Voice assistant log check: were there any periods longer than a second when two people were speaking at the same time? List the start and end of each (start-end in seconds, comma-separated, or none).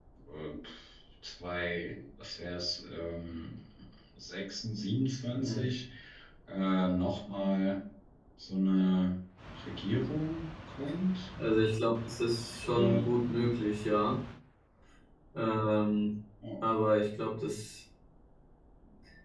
none